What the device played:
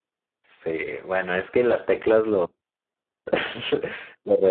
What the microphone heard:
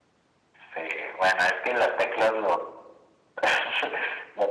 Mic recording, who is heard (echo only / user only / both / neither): echo only